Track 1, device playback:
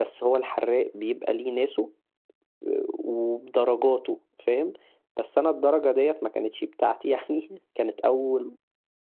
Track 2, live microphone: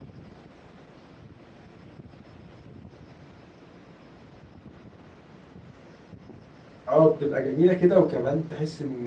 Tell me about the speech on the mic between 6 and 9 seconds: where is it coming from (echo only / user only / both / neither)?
user only